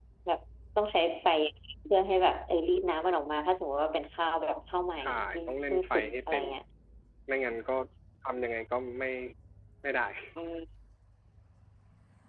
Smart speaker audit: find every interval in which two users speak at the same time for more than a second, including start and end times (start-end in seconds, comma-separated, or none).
5.0-6.4